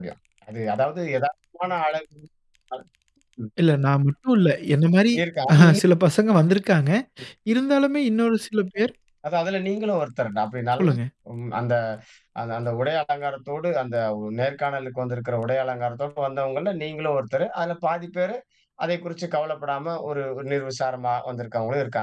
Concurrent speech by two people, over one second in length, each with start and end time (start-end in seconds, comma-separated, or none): none